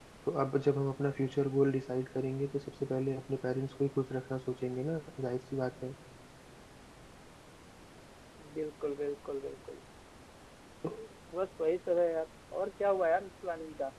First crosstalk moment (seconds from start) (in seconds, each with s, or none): none